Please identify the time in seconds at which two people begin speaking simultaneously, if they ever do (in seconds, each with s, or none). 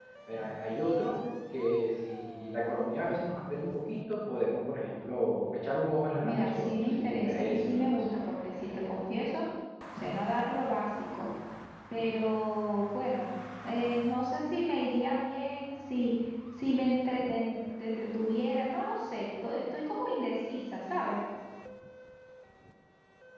6.2 s